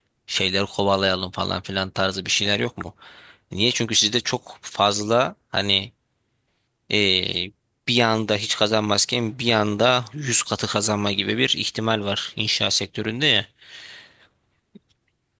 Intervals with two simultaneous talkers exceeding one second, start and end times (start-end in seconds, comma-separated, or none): none